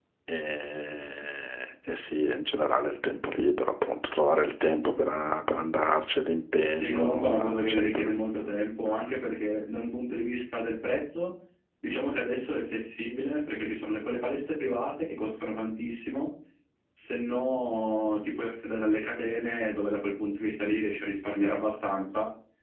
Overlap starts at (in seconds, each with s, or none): 6.7 s